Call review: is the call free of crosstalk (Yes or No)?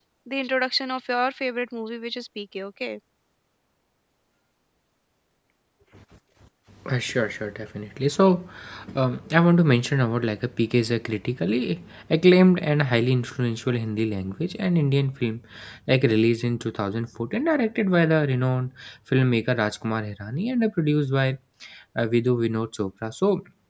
Yes